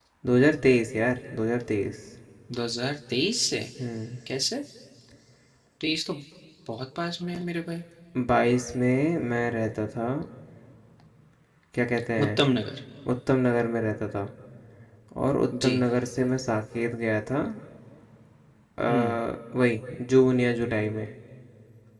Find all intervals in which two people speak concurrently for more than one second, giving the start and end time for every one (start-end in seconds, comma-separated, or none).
none